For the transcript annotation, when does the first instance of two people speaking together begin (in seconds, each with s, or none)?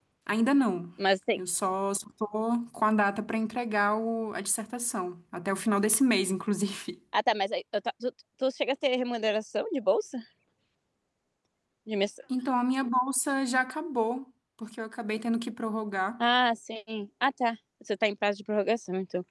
none